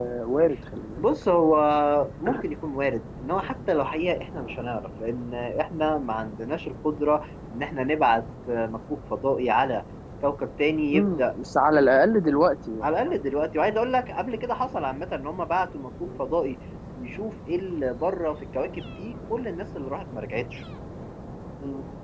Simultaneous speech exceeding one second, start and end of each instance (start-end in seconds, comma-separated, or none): none